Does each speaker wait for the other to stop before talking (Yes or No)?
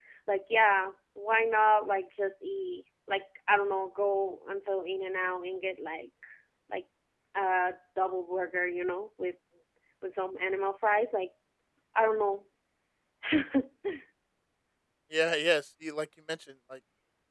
Yes